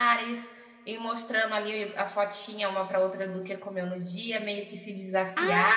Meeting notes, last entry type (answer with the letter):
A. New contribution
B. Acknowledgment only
A